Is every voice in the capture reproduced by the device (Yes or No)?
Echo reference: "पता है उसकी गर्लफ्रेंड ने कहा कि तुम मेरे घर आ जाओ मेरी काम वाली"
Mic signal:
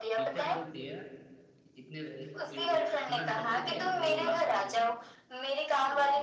No